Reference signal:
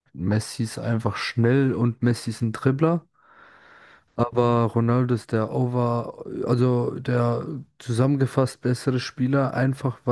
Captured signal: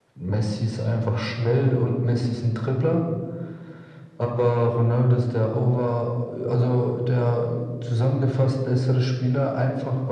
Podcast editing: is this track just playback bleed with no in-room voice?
Yes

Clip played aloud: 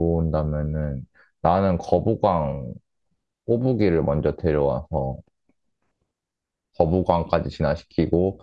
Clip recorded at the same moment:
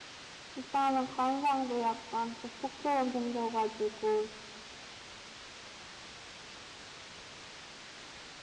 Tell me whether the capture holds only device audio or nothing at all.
No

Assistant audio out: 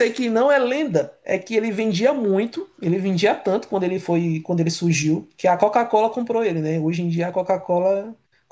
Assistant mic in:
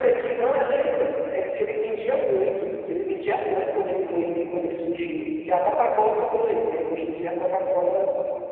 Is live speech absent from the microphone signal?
Yes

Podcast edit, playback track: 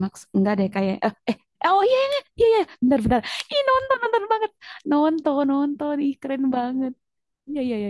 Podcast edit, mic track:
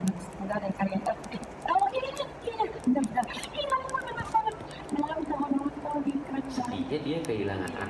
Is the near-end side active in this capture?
Yes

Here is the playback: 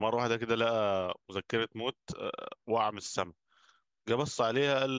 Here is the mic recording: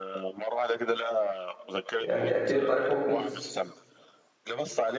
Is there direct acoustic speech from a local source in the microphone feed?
Yes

